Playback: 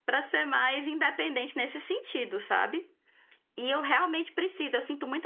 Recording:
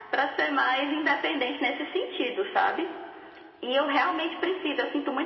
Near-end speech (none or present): none